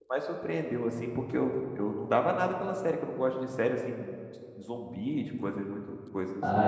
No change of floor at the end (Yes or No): No